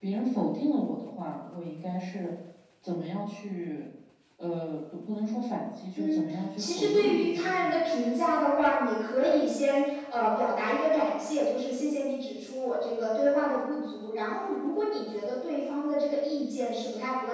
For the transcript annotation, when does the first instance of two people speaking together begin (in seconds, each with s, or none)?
6.0 s